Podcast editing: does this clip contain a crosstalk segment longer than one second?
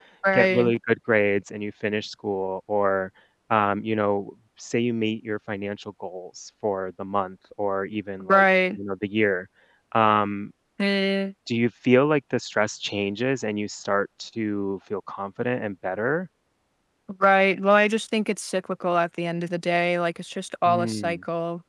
No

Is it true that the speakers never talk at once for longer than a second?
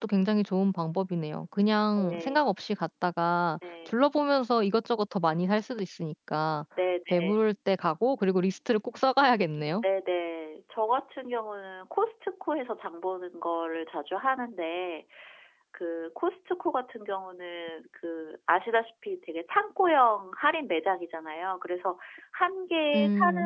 Yes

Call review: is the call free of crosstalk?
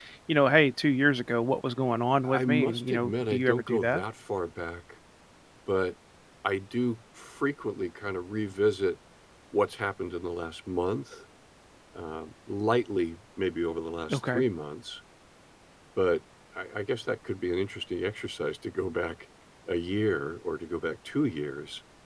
No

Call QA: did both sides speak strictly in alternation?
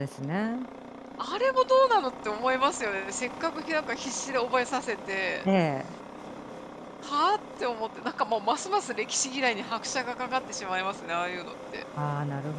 Yes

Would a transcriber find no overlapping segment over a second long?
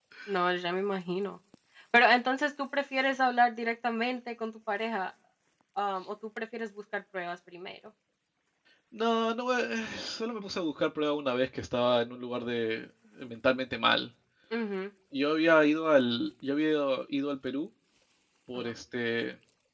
Yes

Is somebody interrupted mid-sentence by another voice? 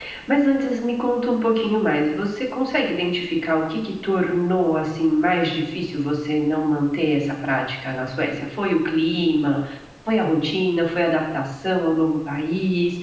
No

